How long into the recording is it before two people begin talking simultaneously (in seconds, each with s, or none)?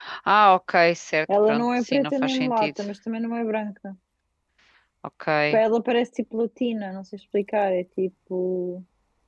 1.3 s